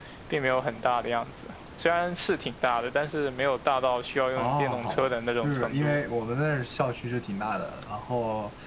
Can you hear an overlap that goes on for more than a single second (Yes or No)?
Yes